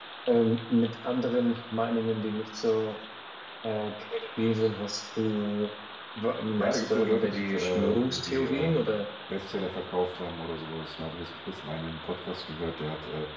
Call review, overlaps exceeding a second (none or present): present